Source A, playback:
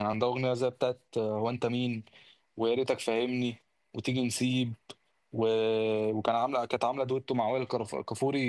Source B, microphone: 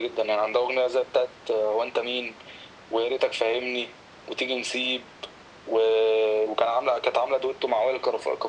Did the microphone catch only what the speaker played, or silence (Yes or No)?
Yes